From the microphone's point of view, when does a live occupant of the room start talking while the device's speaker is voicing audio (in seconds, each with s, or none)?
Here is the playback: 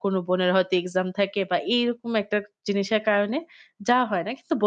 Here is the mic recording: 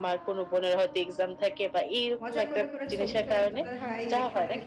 2.2 s